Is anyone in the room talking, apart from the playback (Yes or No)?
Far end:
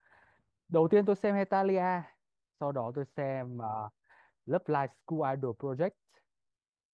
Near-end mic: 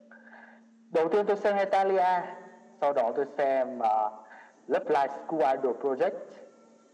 No